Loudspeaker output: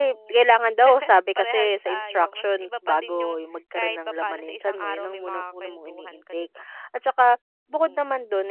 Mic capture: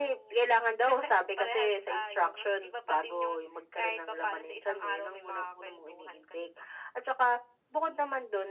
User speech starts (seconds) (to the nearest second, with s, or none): none